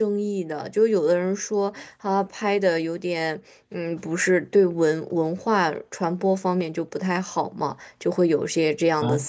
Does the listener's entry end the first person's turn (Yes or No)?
Yes